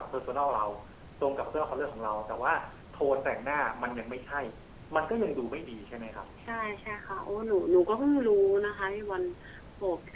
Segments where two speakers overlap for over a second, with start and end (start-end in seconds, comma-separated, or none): none